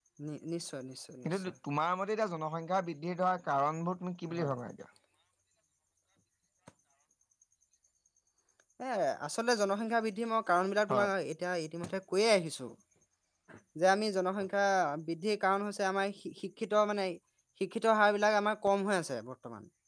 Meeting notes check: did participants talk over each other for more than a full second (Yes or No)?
No